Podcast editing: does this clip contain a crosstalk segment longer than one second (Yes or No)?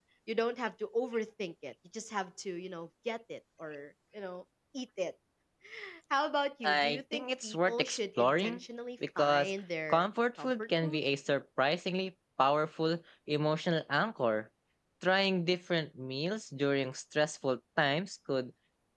Yes